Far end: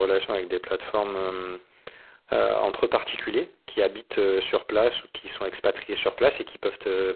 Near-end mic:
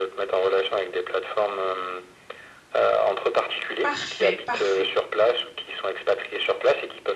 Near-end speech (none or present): present